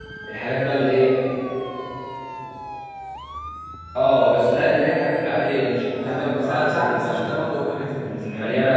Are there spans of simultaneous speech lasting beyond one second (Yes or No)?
Yes